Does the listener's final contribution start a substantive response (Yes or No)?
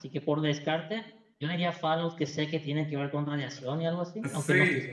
Yes